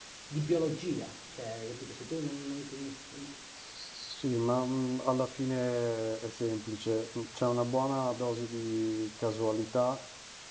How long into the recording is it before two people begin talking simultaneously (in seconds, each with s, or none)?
none